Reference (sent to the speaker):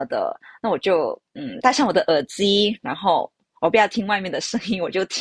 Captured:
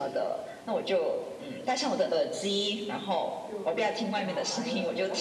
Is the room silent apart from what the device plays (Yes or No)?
No